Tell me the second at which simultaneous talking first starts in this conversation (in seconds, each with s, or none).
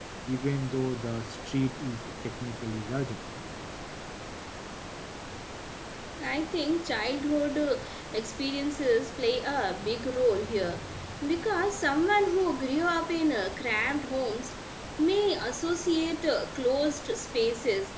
none